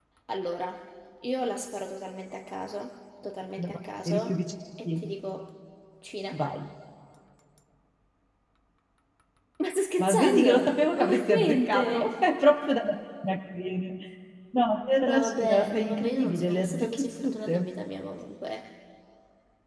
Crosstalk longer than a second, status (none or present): present